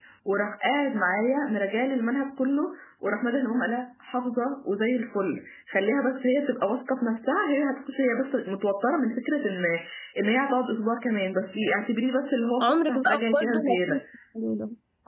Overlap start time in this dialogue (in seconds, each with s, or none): 12.6 s